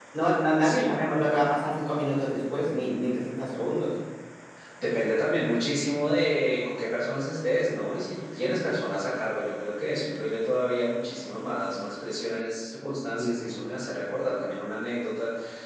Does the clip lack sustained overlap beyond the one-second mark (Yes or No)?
Yes